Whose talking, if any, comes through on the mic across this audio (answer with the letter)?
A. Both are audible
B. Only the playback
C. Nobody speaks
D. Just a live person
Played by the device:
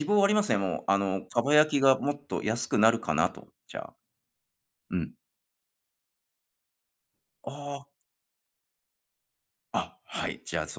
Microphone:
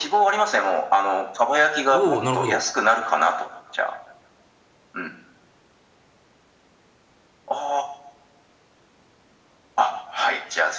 A